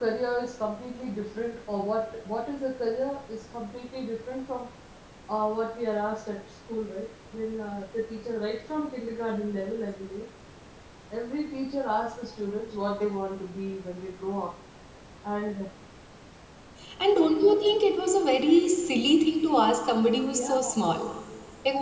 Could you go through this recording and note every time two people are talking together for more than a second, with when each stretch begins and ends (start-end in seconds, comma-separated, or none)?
none